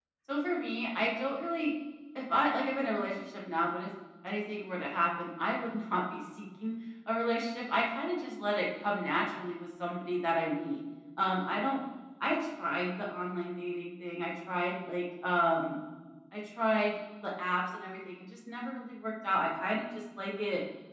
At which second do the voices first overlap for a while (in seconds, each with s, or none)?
none